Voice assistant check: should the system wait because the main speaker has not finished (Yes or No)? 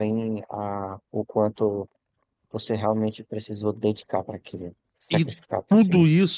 No